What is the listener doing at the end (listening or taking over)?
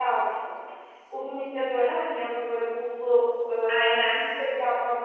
listening